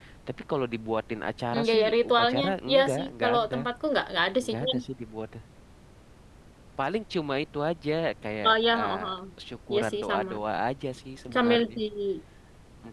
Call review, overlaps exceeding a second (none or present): present